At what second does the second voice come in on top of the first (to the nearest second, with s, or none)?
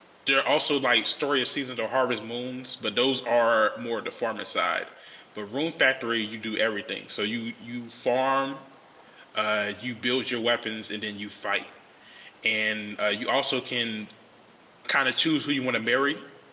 none